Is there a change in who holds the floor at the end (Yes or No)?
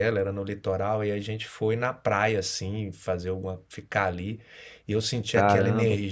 No